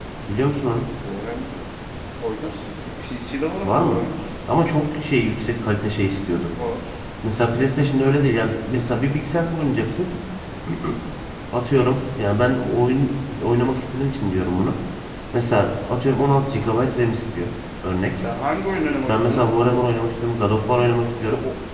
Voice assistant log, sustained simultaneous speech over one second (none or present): none